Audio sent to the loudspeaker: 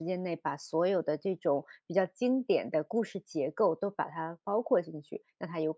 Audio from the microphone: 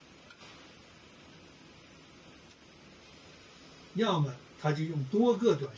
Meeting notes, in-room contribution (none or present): present